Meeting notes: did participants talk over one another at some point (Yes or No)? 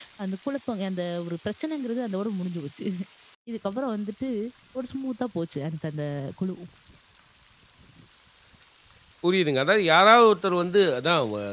No